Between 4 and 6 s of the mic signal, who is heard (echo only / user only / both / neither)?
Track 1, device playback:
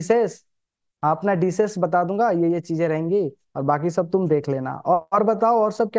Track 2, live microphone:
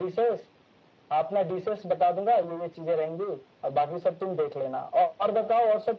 echo only